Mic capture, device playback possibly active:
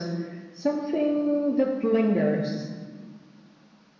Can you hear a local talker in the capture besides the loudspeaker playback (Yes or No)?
No